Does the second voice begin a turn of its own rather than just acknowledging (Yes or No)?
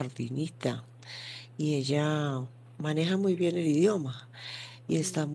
No